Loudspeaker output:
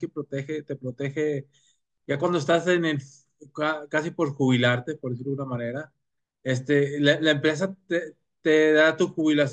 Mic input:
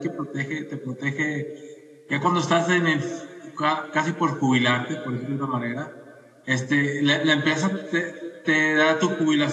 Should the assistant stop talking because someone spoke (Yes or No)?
No